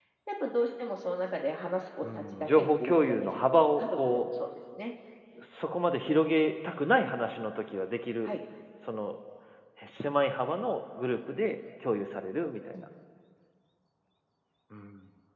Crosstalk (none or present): present